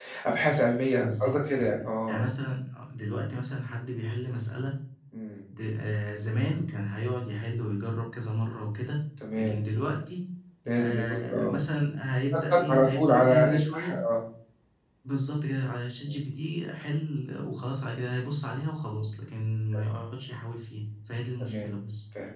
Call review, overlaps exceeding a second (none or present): present